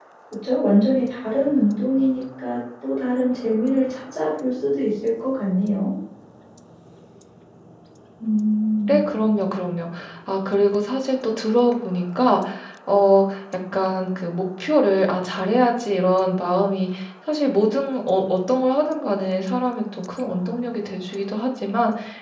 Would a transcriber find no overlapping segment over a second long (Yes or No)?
Yes